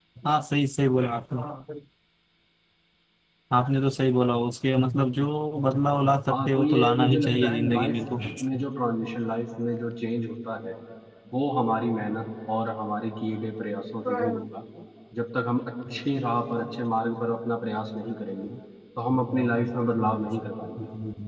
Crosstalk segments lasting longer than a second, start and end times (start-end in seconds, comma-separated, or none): 6.3-8.0